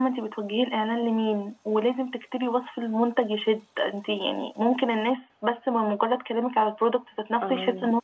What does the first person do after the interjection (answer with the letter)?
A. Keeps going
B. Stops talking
A